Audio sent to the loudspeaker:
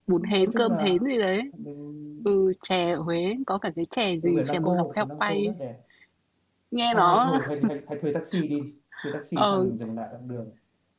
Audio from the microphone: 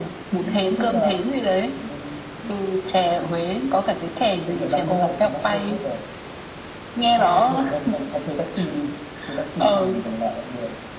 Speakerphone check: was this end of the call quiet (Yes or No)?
Yes